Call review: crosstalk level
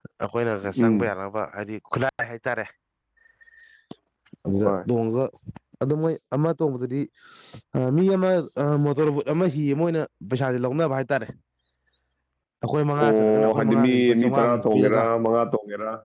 present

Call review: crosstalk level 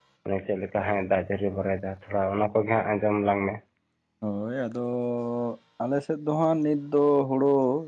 none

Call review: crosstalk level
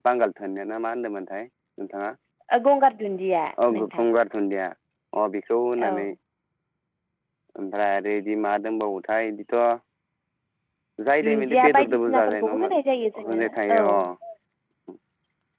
present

